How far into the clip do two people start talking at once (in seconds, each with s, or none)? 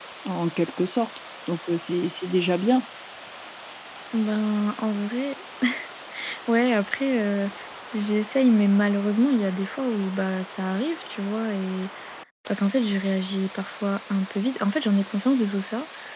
none